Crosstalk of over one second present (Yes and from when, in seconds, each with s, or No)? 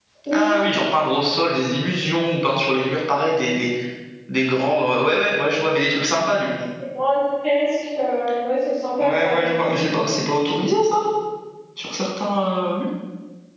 No